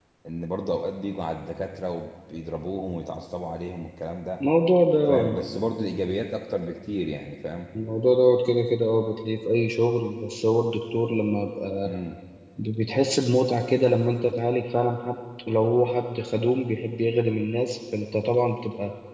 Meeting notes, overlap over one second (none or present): none